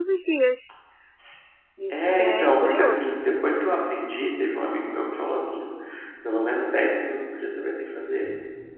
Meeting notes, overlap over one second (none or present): present